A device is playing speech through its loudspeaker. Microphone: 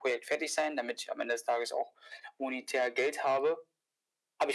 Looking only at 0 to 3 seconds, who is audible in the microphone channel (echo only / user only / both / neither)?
echo only